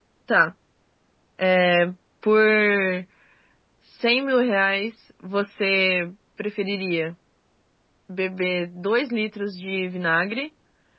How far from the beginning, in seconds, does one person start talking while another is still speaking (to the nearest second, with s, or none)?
none